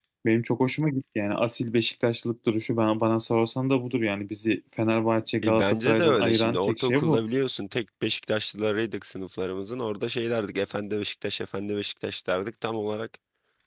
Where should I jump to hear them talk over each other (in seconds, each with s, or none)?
5.4 s